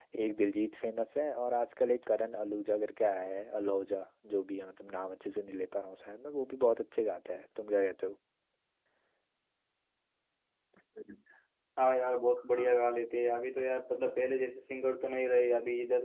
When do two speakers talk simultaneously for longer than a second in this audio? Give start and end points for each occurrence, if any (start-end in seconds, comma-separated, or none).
none